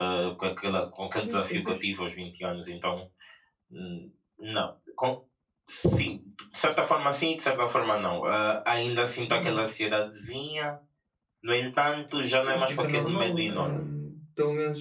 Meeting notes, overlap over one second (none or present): present